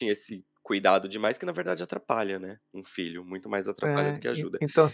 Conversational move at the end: taking over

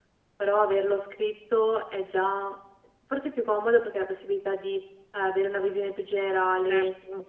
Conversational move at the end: listening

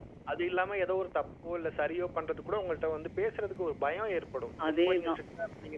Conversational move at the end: listening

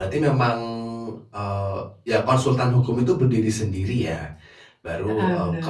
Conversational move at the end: listening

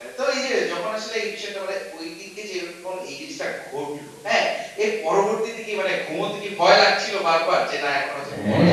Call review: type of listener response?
taking over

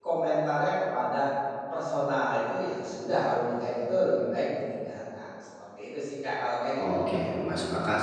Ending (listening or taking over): taking over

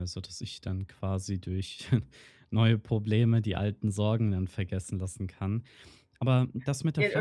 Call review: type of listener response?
taking over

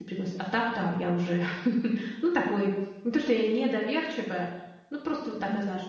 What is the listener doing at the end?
taking over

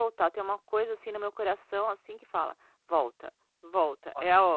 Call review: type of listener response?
listening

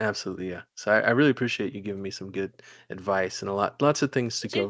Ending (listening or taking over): listening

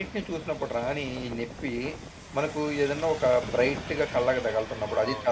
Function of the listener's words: taking over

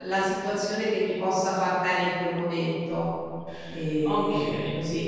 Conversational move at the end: taking over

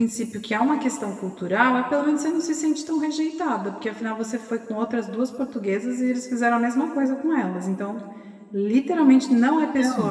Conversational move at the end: taking over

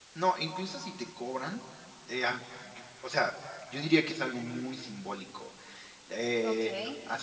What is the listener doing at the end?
taking over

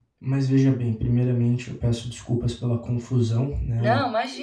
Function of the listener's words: listening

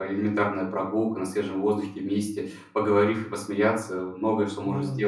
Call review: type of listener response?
taking over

